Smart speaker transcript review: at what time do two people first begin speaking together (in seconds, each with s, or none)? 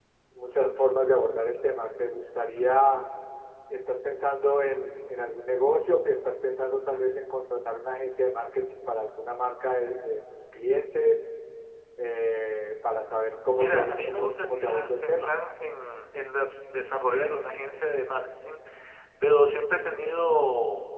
13.6 s